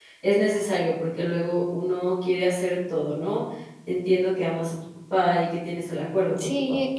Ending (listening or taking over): taking over